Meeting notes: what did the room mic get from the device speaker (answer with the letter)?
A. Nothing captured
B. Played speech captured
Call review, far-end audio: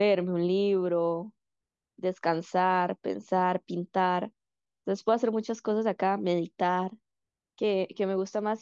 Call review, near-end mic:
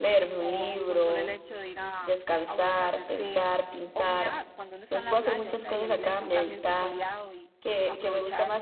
B